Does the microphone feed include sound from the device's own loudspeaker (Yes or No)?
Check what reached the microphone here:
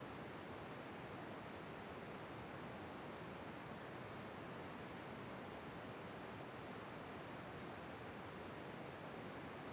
No